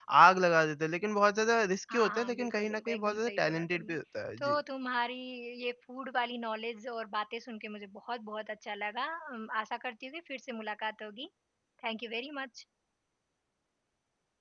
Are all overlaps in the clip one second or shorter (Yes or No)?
No